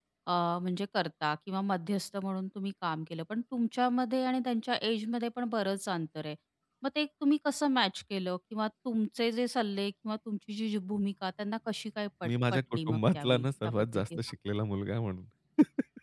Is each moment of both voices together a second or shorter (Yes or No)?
No